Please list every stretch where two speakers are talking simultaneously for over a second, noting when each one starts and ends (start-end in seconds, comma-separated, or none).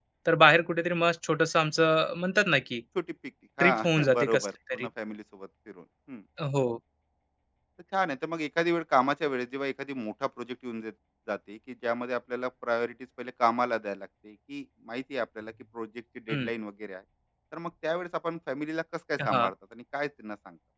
3.6-4.9